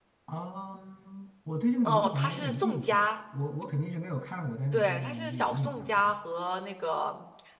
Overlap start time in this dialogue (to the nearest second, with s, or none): 2 s